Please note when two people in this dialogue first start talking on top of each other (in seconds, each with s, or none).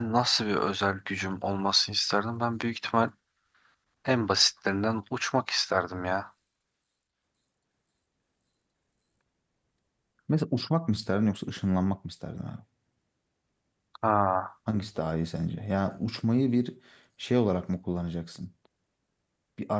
none